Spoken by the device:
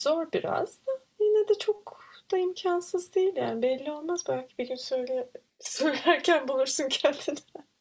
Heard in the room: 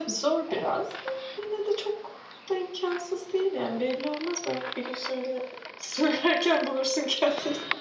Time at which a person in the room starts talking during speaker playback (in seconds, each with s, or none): none